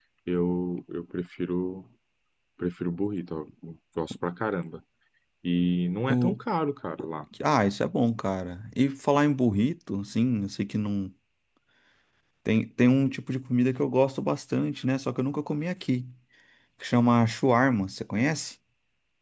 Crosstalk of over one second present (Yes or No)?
No